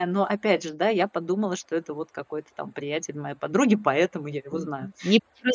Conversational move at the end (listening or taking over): taking over